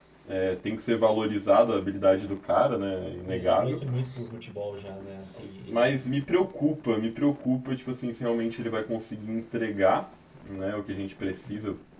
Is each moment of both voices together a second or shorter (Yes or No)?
Yes